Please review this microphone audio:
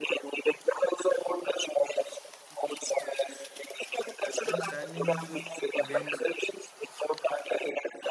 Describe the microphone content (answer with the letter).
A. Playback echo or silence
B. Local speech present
B